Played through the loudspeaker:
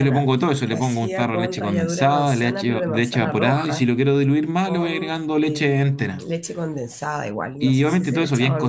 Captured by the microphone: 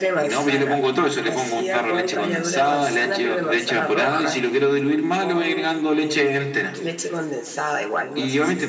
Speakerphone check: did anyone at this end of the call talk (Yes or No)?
No